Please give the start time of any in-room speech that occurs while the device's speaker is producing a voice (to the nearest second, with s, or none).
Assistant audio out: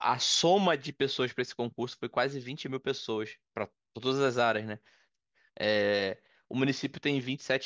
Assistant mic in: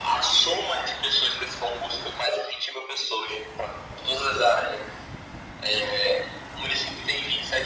none